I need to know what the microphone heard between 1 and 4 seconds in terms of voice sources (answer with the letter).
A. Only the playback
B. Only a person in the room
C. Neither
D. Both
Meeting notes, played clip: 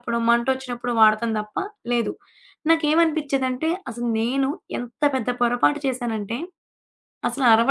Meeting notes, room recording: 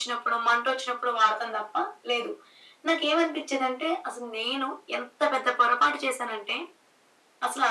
A